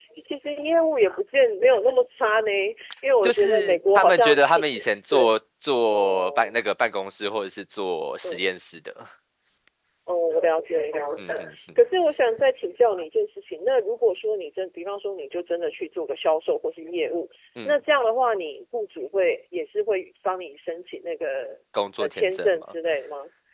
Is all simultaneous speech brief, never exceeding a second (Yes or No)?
No